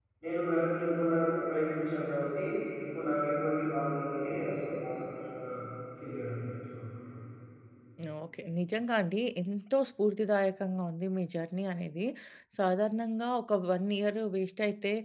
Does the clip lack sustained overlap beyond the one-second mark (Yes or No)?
Yes